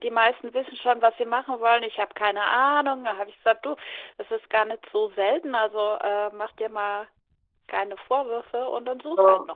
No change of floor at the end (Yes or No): No